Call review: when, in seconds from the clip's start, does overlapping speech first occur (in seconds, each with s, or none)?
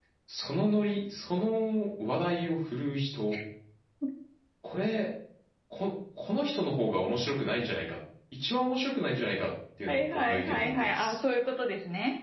9.9 s